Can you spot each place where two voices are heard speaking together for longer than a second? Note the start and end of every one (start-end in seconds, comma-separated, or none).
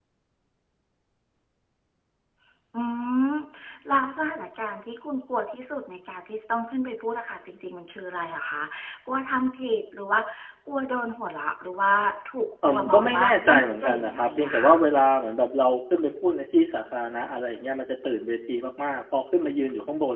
12.7-14.8